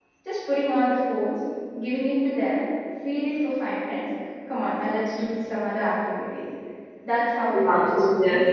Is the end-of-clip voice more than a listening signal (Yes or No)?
Yes